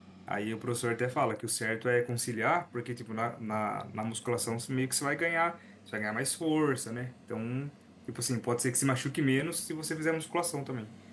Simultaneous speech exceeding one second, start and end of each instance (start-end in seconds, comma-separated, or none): none